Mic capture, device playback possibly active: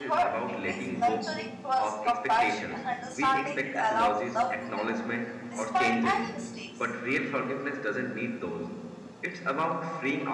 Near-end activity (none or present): present